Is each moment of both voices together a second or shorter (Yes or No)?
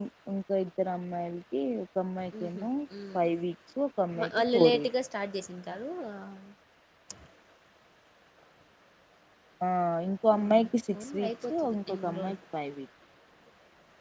No